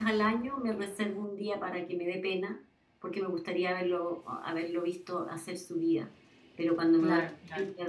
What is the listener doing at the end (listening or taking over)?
listening